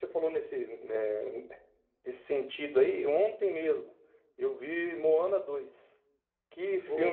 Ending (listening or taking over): listening